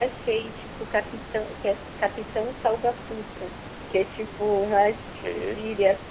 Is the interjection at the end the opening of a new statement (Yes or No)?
No